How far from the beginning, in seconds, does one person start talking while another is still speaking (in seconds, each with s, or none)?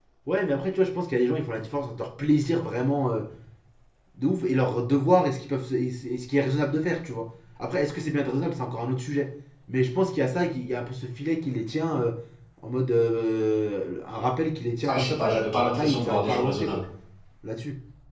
14.8 s